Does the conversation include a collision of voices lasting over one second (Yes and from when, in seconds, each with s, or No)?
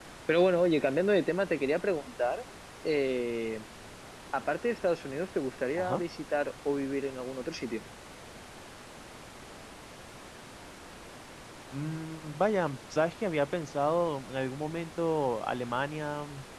No